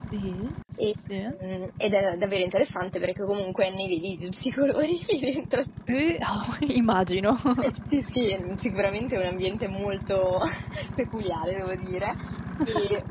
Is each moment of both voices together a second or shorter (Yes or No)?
Yes